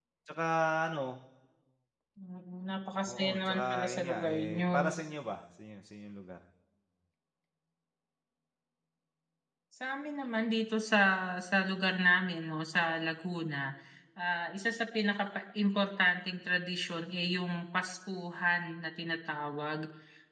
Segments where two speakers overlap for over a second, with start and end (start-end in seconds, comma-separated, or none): 3.0-4.9